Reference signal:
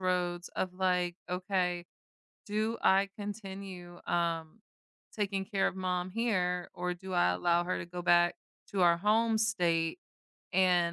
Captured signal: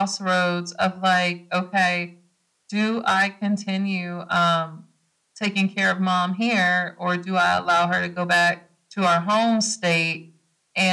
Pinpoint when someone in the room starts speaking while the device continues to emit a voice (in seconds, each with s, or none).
none